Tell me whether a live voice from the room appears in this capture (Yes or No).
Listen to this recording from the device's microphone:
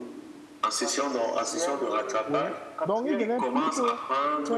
Yes